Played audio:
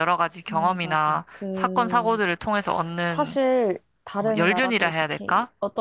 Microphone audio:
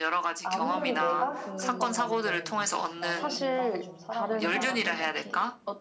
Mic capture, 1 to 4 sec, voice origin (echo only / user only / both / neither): both